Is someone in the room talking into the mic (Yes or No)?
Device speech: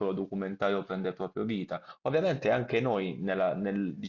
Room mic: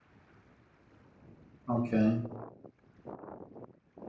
Yes